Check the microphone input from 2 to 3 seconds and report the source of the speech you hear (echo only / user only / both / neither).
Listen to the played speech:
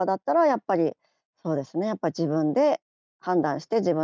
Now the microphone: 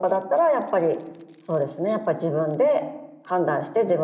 echo only